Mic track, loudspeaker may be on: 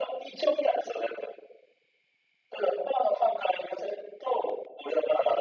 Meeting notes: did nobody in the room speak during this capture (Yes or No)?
Yes